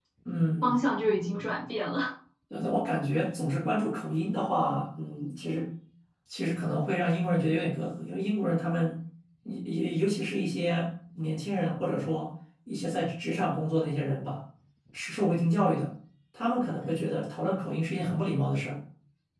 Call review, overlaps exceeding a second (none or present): none